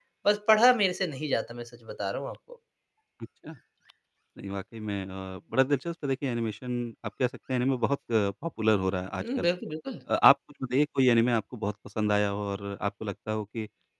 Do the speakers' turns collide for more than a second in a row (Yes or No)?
No